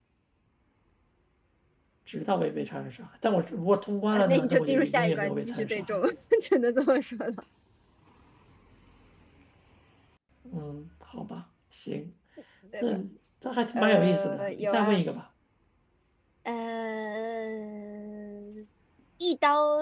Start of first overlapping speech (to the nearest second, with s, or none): 4 s